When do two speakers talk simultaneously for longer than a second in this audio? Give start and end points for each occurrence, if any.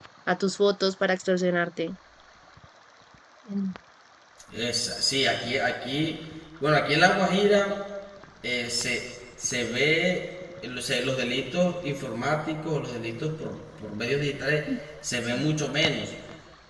none

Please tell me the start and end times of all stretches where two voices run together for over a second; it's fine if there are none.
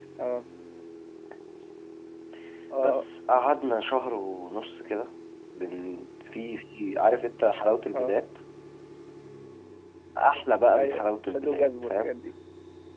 10.8-12.1

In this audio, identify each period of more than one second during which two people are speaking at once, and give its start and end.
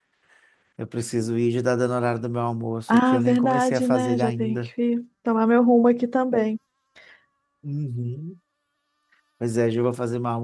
2.9-4.6

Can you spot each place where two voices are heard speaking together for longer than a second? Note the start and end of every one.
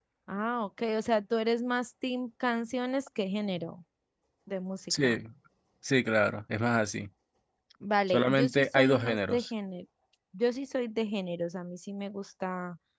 8.1-9.4

